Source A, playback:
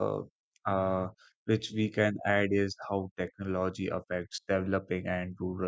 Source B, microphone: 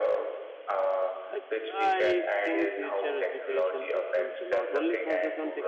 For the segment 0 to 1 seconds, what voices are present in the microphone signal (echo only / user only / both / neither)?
echo only